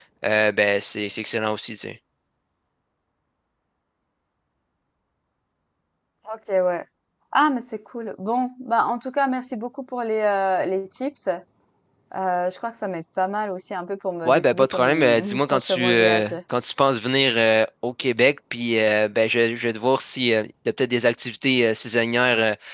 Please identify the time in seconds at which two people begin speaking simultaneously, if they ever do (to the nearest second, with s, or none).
14 s